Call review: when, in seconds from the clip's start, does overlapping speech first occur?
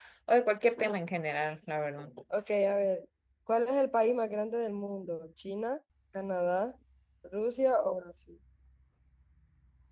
none

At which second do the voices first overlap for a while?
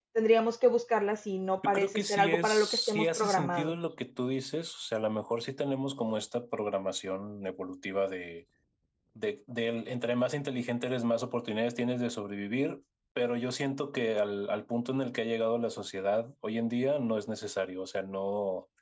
1.6 s

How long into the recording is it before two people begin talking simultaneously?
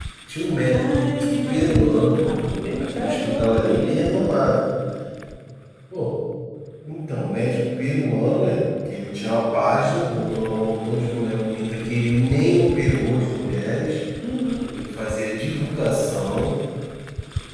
0.7 s

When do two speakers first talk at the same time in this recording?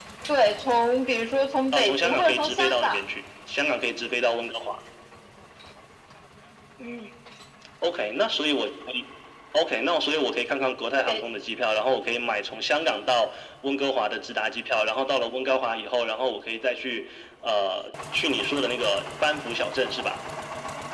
1.7 s

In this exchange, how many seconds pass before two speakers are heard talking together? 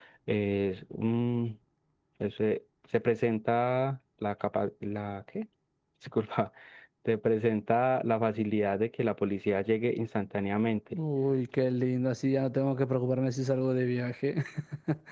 none

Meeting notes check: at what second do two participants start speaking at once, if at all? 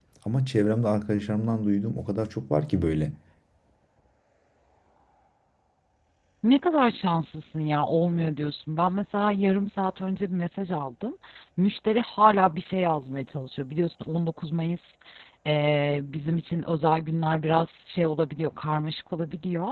none

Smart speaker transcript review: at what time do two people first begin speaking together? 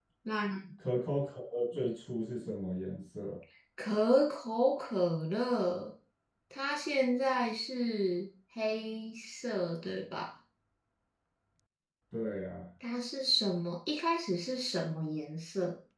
none

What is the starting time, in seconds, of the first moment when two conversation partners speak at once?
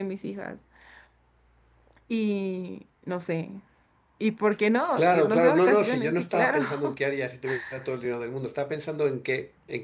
5.0 s

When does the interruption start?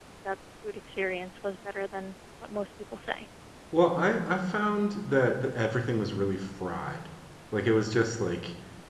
none

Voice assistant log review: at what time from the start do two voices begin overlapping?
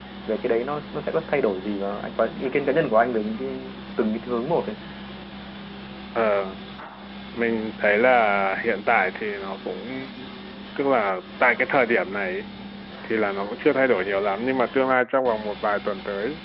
none

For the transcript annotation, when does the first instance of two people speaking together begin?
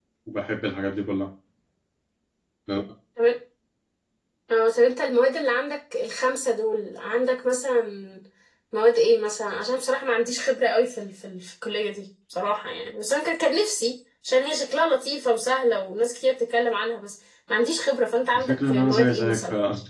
18.3 s

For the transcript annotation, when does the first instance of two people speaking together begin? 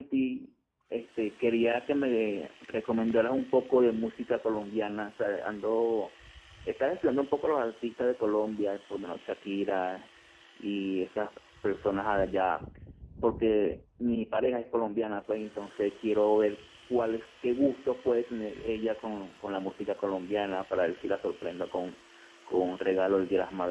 none

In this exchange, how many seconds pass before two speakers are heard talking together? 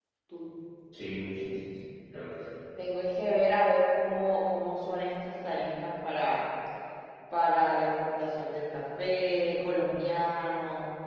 none

